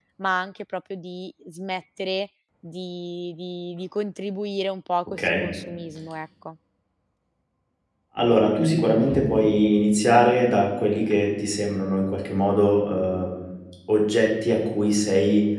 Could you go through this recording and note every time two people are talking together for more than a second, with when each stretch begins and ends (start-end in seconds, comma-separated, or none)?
none